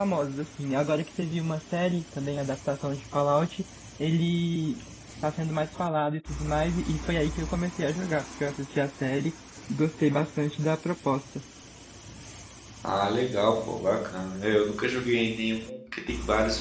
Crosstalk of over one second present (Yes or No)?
No